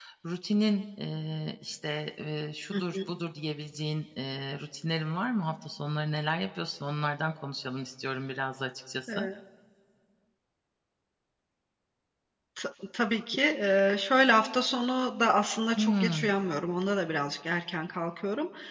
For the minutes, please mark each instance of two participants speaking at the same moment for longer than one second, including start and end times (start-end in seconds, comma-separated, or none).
none